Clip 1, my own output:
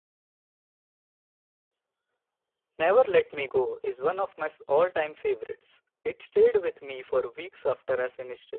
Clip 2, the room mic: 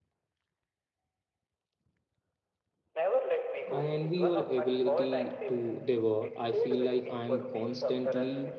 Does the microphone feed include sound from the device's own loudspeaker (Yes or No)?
Yes